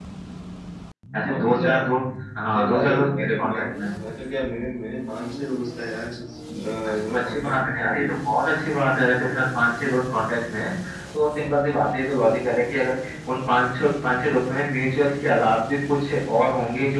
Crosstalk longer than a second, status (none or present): present